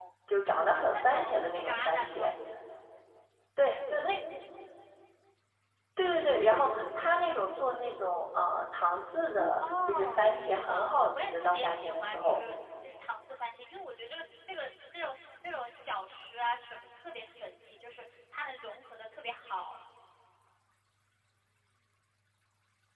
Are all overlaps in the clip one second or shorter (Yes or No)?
No